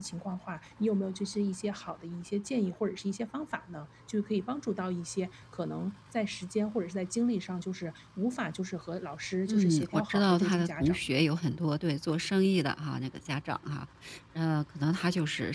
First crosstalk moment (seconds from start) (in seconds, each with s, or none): 9.5 s